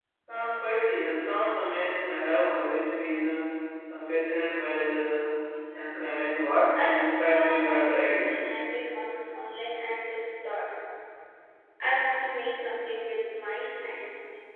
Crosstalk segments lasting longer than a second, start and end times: 6.8-8.3

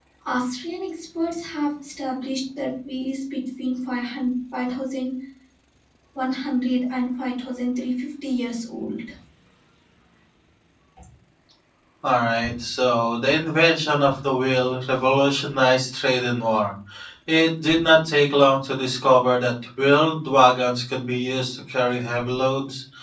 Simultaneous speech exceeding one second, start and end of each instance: none

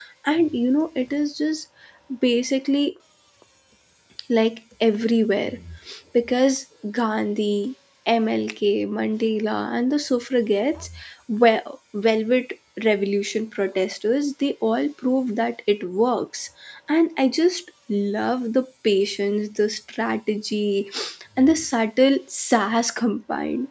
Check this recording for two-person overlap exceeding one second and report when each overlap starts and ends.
none

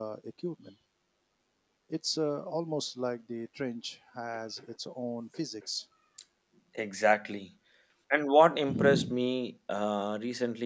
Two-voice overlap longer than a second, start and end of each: none

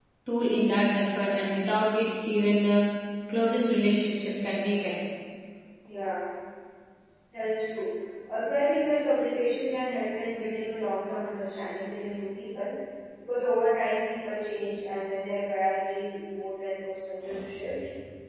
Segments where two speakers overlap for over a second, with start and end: none

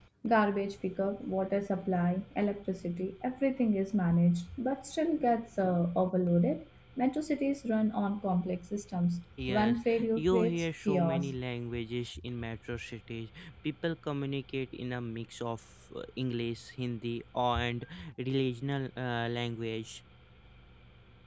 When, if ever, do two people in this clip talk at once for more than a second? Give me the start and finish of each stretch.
9.5-11.3

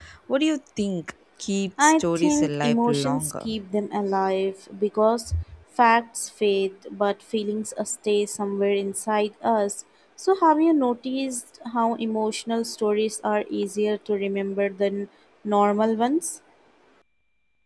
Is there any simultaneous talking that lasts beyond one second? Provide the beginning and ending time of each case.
1.8-3.5

